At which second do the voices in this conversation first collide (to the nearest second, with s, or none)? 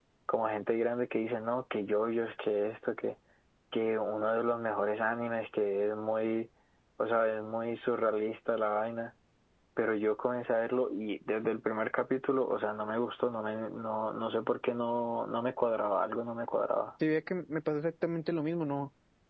none